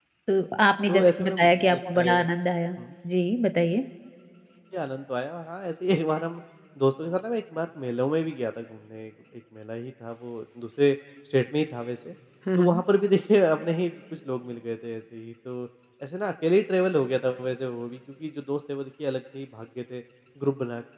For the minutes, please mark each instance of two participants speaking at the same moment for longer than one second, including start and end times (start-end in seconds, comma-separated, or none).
0.9-2.2